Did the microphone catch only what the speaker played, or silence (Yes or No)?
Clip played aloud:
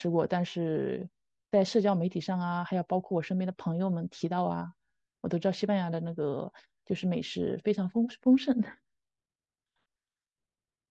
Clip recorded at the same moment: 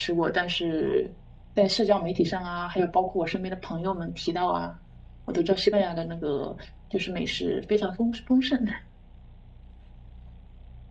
Yes